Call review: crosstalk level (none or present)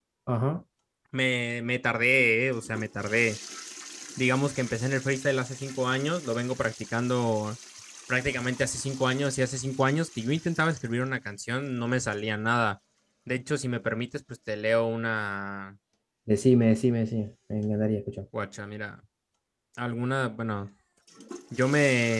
none